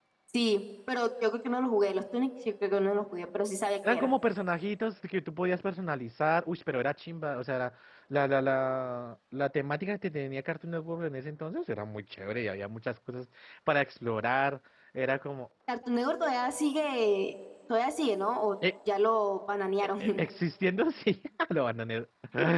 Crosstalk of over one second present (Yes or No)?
No